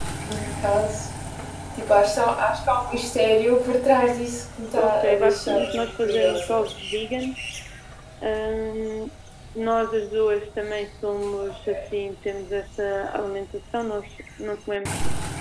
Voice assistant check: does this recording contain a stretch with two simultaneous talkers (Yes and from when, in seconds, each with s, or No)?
Yes, from 4.8 s